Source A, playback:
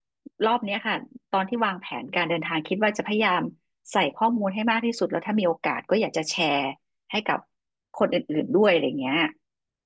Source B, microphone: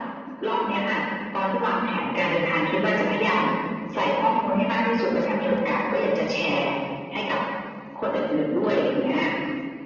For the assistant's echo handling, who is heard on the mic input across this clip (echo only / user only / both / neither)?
echo only